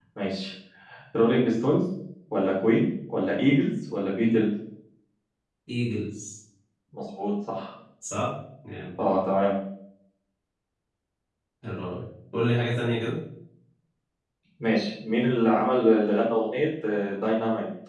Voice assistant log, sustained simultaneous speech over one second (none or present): none